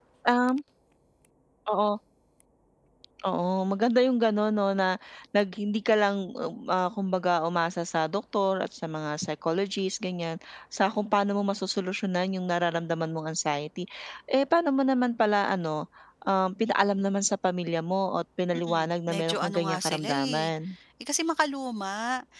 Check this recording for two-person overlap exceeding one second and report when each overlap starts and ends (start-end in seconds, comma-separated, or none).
18.5-20.5